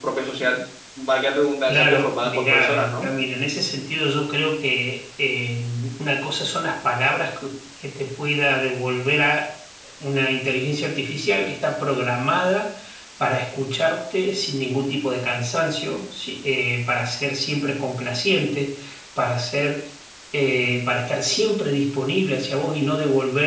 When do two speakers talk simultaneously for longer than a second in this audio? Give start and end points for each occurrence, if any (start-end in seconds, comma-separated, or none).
1.7-3.1